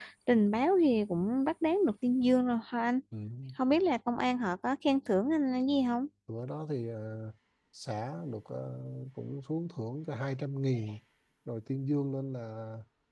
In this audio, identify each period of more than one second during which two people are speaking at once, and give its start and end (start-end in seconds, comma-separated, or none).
none